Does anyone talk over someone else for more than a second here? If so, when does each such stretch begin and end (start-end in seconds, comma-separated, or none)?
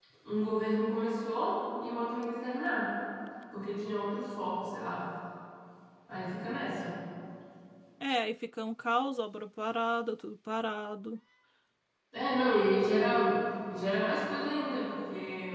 none